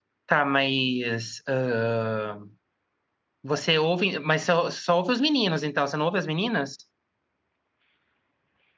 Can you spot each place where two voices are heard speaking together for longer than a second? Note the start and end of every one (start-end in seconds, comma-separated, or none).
none